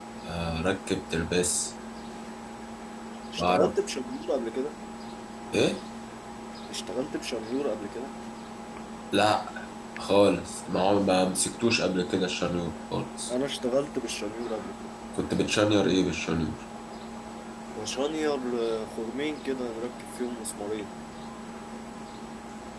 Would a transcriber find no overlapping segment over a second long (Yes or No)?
Yes